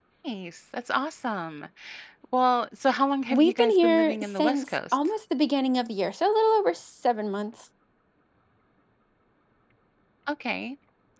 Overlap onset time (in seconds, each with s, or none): 3.3 s